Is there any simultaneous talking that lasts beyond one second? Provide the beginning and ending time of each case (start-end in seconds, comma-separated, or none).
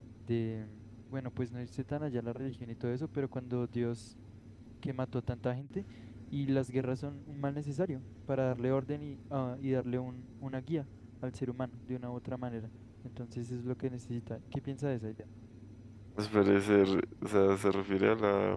none